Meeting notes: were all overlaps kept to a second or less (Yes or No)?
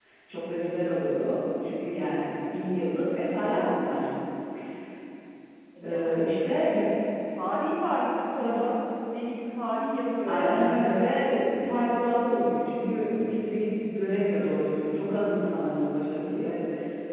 Yes